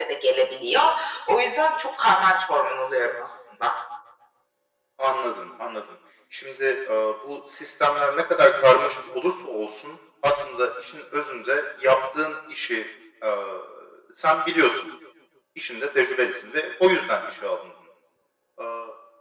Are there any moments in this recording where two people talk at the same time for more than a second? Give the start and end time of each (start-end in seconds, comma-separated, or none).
none